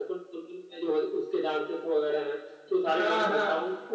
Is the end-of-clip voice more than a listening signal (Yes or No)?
No